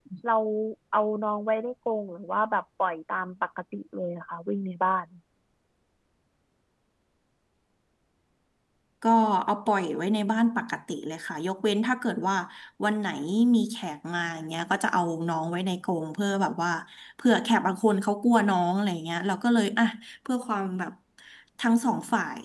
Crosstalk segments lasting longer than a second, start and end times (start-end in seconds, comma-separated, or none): none